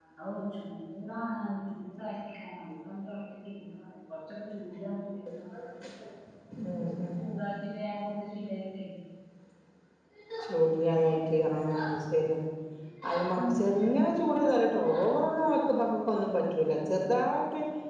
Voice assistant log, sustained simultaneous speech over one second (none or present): none